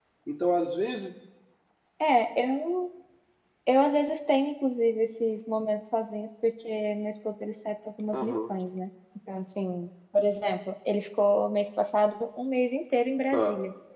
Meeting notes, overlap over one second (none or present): none